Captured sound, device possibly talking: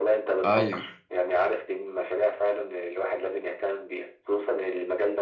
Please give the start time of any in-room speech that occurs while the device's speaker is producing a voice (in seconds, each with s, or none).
0.4 s